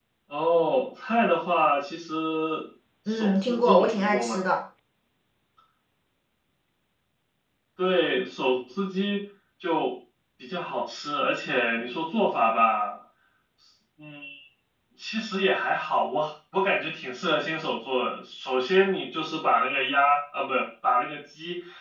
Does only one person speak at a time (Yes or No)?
No